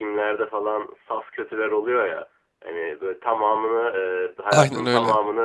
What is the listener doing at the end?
listening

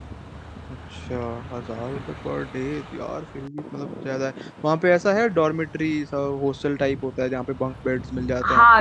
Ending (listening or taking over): taking over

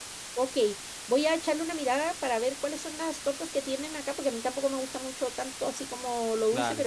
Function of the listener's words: listening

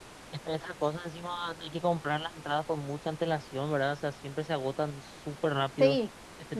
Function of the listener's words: taking over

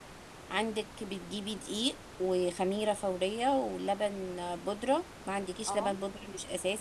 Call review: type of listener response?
listening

